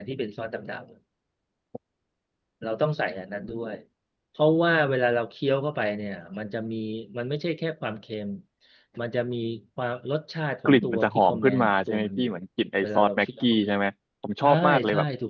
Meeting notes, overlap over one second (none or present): present